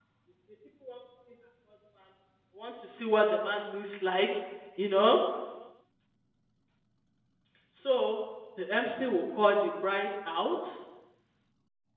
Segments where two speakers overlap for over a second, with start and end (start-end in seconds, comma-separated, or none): none